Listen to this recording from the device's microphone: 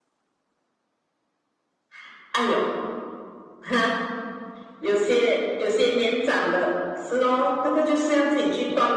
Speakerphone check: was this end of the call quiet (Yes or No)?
Yes